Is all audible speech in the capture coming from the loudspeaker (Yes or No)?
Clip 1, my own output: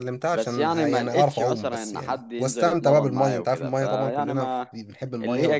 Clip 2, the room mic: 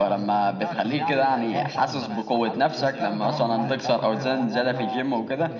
No